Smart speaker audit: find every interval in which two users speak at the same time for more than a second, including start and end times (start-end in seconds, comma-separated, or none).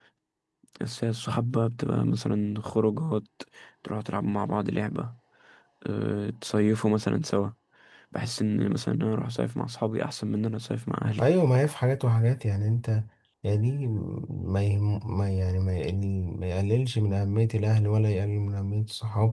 none